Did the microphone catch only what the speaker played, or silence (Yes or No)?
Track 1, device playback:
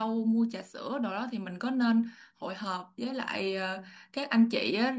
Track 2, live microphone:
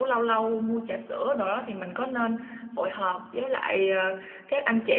Yes